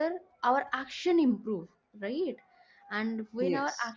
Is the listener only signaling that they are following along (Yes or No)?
Yes